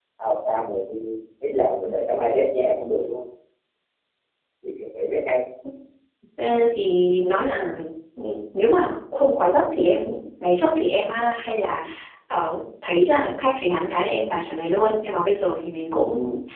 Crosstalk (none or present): none